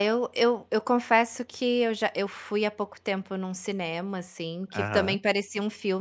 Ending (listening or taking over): listening